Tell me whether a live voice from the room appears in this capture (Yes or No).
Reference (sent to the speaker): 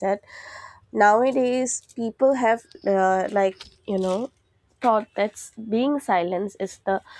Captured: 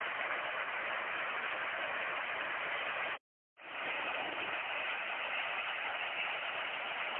No